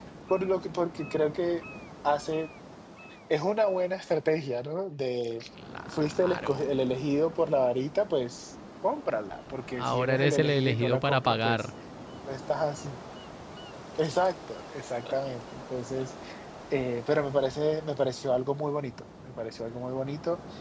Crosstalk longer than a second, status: present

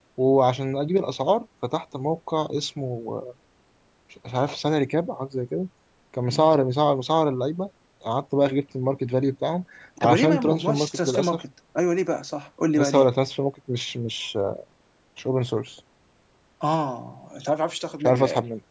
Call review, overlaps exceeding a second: present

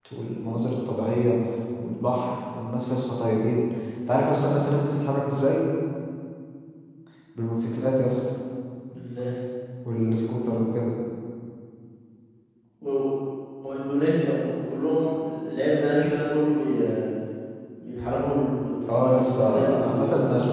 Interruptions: present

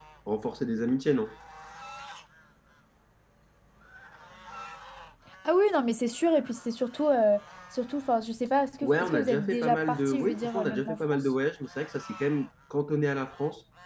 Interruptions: present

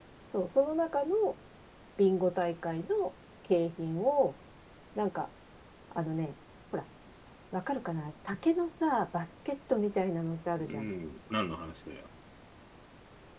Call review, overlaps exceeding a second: none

